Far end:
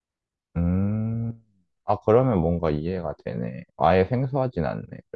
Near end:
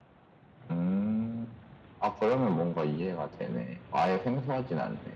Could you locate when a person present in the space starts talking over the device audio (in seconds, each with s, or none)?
none